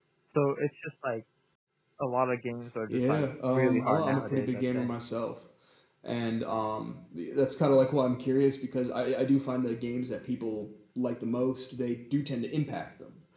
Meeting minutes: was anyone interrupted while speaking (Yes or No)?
Yes